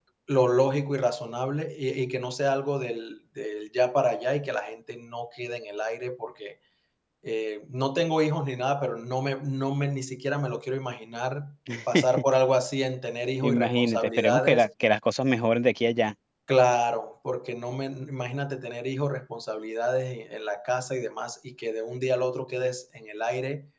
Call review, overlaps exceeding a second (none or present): present